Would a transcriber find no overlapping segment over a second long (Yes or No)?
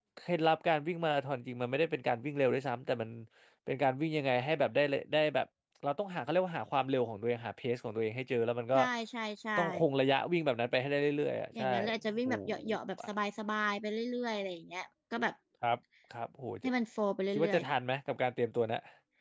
Yes